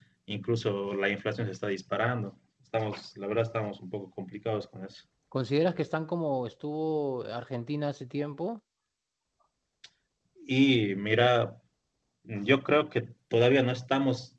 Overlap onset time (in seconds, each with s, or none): none